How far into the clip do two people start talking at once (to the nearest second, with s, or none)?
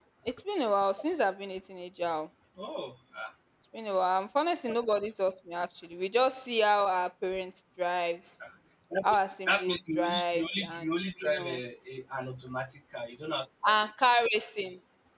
9 s